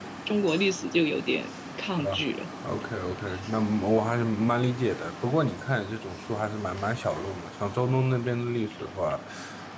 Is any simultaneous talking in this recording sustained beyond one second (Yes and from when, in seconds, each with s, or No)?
No